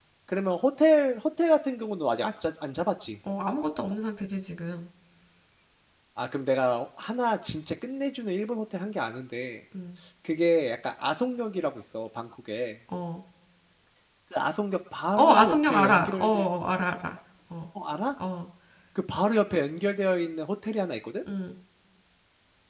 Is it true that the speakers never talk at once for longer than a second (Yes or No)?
No